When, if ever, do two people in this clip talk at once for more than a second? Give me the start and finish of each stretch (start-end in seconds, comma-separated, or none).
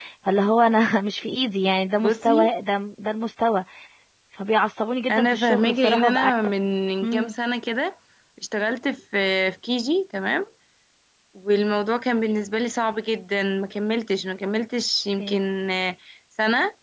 5.1-6.3